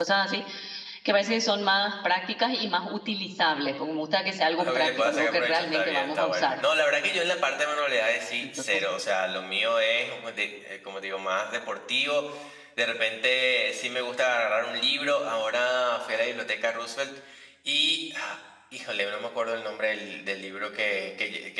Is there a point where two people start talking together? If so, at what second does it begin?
4.6 s

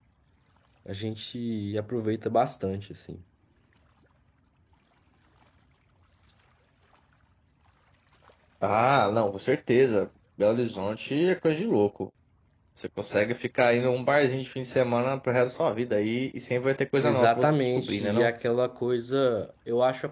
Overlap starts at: 17.0 s

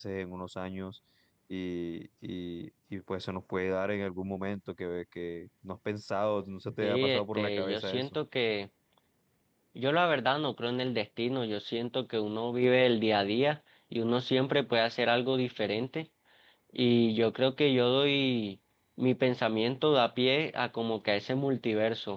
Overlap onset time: 6.8 s

